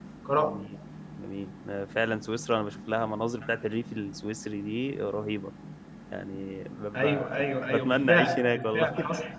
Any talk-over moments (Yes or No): Yes